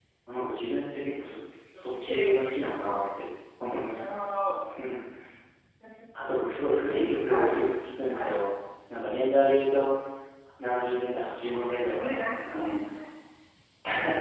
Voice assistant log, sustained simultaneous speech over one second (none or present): present